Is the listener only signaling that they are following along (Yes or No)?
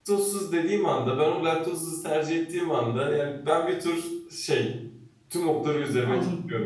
No